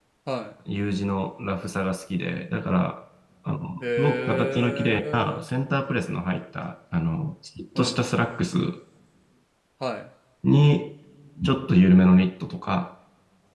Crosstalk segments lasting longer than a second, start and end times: 4.0-5.4

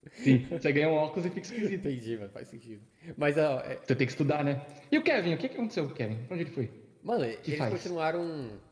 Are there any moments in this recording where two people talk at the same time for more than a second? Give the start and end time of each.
none

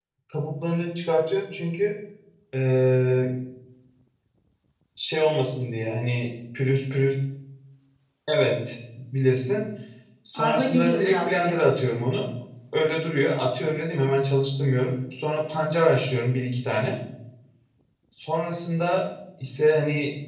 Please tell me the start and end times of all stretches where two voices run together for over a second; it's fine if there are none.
10.3-11.7

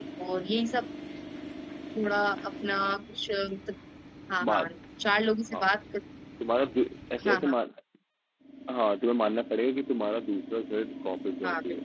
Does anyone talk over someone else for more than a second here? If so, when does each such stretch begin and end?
none

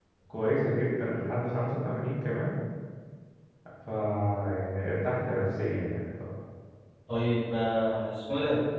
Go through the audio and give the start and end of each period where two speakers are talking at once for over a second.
none

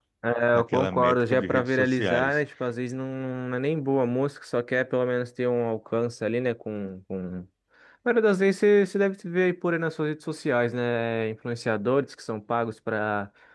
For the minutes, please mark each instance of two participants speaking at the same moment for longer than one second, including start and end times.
0.5-2.4

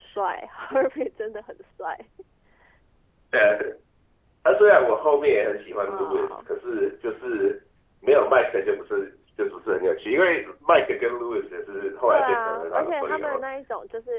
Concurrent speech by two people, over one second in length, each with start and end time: 12.1-13.4

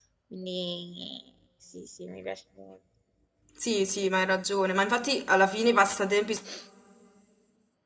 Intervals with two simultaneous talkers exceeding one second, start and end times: none

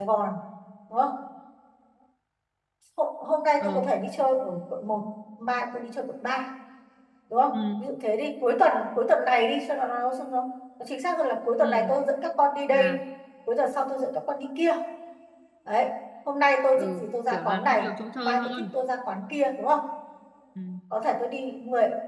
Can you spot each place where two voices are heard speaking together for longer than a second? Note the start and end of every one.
16.8-18.7

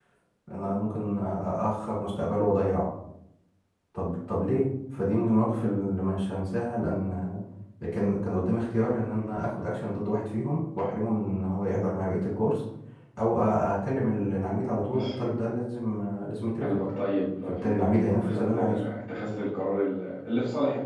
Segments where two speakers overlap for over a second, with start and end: 17.5-18.8

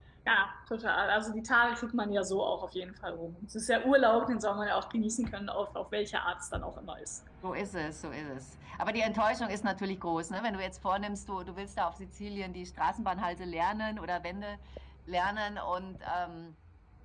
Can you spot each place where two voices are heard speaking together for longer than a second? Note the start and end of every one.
none

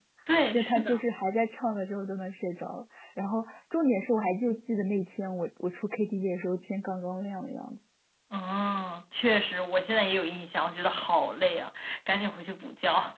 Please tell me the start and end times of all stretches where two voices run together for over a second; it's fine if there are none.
none

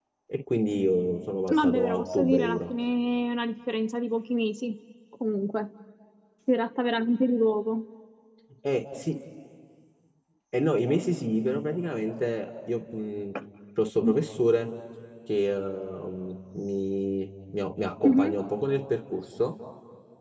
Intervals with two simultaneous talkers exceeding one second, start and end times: 1.5-2.7

